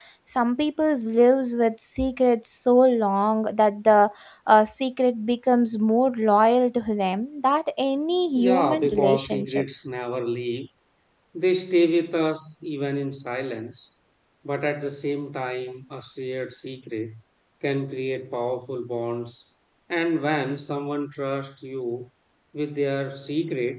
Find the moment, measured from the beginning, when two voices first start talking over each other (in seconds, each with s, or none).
8.3 s